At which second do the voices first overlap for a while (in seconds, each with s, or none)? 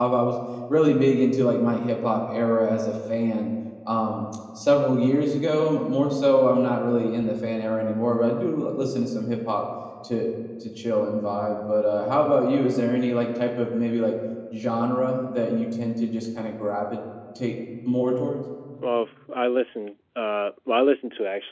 none